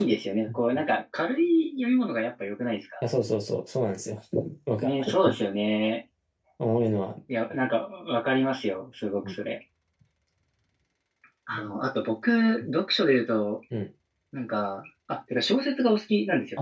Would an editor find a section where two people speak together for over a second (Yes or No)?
No